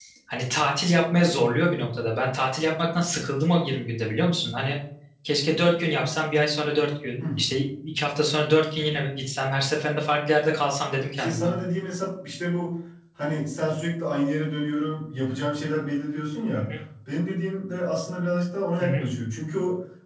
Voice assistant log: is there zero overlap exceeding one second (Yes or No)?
Yes